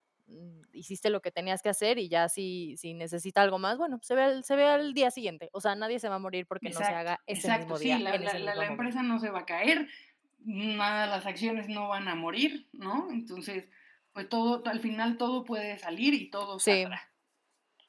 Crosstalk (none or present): present